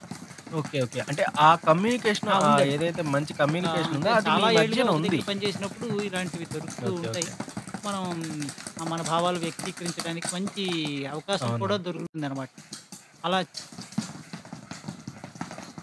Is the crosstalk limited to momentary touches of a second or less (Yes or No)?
No